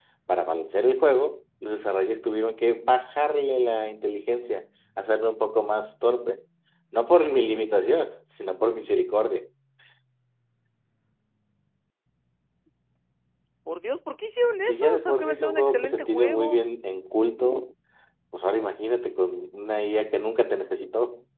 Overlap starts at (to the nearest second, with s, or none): 15 s